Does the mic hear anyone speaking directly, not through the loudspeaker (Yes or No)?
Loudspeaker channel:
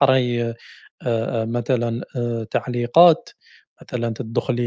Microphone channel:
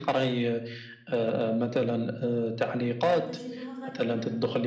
Yes